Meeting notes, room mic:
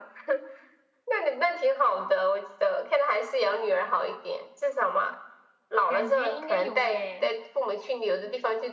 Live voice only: 感觉应该有诶，

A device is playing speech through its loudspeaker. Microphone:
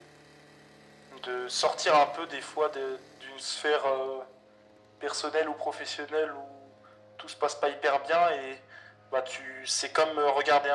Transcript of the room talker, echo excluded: none

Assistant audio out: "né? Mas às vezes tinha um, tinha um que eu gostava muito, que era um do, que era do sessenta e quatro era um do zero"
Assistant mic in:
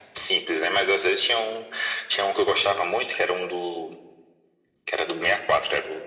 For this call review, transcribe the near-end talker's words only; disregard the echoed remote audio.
none

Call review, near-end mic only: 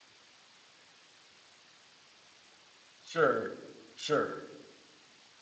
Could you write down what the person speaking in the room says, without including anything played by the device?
sure, sure.

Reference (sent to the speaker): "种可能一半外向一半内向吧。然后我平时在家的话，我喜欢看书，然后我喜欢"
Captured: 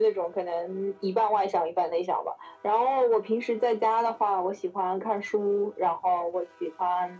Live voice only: none

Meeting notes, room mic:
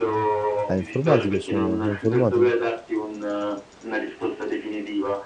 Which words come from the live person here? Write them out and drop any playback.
è informatico, sono, è informatico.

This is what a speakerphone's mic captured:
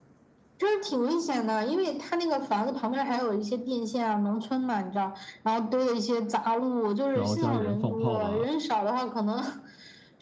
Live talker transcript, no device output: 然后家里人放炮嘛，

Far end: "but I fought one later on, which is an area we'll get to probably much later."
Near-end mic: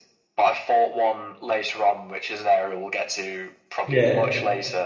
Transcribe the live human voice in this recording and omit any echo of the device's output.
Yeah,

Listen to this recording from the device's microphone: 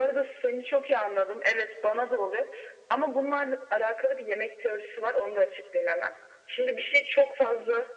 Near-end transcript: none

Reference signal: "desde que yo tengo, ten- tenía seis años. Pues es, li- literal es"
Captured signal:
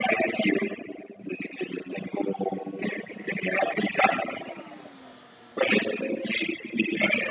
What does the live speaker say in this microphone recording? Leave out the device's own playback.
none

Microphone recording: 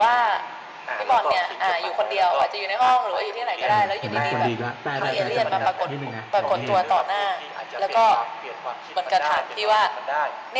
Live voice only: เออเห็นไหมคนดีอีกและแต่แต่แต่แต่แต่นิดนึงนะแต่นิดนึง

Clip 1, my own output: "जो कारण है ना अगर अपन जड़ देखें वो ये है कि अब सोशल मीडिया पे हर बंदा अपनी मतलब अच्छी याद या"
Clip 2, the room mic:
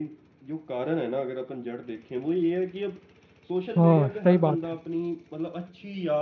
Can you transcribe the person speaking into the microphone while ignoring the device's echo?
हाँ सही बात है

